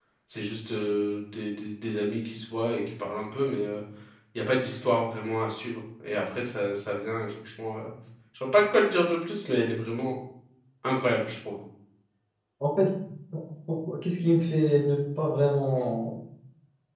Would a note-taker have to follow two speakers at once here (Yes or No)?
No